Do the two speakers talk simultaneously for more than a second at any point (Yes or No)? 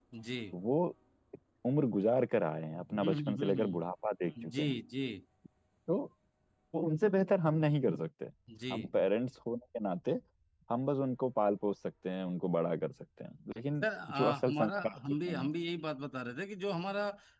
Yes